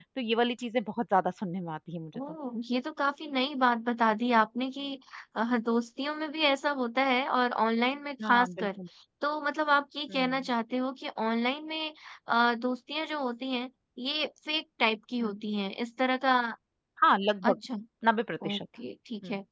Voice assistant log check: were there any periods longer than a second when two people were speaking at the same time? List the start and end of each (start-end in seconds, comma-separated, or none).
none